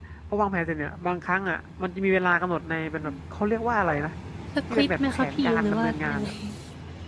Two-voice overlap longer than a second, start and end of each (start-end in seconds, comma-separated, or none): 4.7-6.3